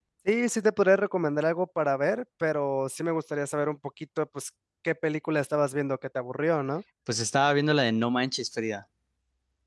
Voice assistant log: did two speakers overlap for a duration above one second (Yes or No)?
No